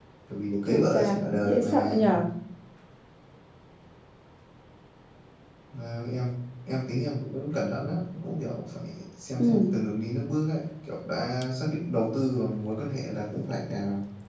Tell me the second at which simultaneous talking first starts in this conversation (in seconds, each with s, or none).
0.7 s